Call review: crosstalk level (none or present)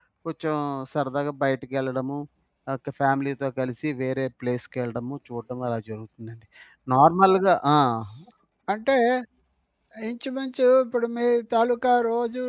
none